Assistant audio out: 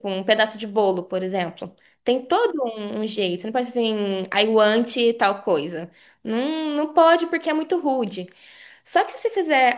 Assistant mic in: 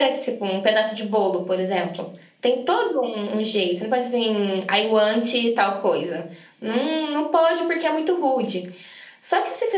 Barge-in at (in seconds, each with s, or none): none